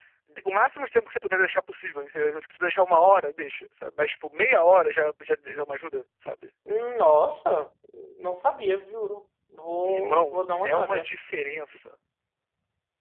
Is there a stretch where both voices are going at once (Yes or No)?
Yes